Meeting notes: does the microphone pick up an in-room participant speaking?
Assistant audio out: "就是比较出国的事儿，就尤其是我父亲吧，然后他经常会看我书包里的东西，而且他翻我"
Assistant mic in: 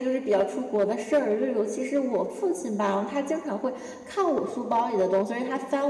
No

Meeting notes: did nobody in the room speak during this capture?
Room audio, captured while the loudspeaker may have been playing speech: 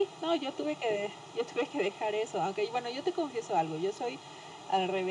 Yes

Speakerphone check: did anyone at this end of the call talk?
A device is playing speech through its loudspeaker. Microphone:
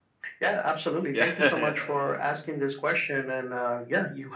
Yes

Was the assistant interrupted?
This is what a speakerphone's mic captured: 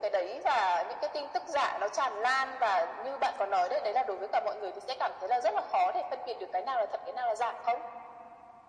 No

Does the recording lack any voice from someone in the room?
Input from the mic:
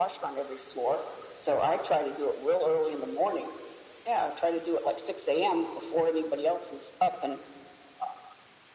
Yes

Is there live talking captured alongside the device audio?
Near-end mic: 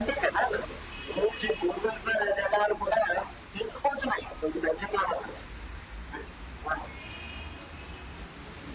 No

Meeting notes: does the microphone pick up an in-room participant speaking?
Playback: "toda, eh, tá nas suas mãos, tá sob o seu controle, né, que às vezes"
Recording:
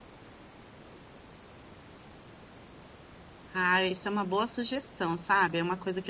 Yes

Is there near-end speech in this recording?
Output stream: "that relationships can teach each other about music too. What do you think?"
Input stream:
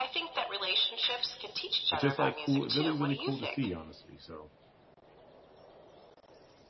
Yes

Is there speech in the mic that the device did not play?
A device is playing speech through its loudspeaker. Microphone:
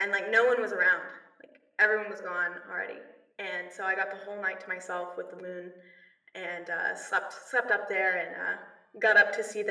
No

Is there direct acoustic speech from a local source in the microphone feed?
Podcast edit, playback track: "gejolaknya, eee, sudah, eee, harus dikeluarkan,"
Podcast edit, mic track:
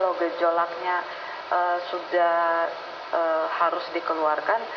No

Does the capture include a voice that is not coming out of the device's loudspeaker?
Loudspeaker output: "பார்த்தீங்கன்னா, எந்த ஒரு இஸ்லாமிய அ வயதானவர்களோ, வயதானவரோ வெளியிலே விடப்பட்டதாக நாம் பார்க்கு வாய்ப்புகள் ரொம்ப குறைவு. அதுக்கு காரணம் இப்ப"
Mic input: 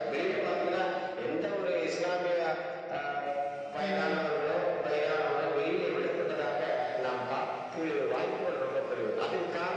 Yes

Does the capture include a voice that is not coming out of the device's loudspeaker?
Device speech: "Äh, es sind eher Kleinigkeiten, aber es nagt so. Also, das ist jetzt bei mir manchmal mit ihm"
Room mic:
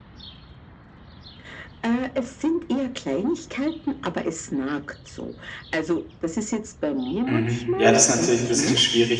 Yes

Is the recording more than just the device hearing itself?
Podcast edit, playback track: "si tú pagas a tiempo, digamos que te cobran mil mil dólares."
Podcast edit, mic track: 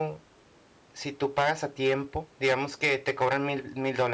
No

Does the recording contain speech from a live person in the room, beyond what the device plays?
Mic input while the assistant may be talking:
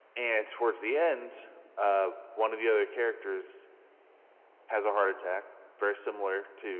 No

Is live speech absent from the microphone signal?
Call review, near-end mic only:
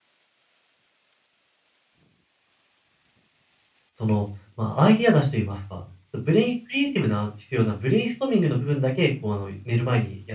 No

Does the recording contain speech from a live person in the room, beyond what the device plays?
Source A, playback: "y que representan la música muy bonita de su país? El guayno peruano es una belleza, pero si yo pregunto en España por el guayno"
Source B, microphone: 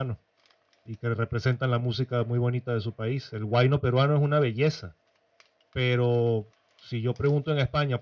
No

